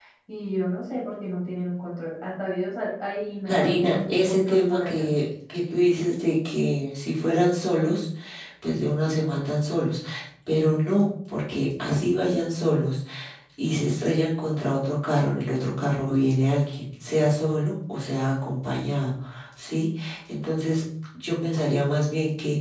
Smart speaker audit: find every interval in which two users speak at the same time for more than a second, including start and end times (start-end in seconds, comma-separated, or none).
3.5-5.1